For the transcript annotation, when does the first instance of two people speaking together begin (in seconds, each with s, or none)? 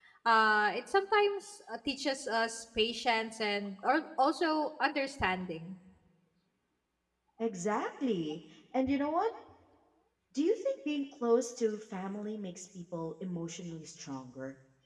none